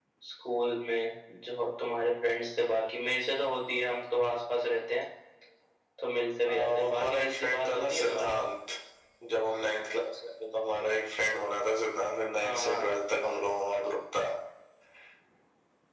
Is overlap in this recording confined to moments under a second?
No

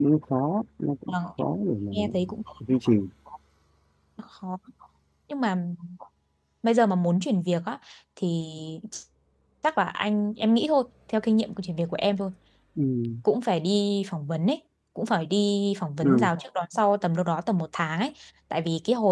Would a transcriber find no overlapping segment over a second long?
Yes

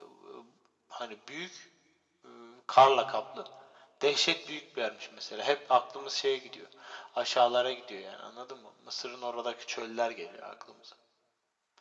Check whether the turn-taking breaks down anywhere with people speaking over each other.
No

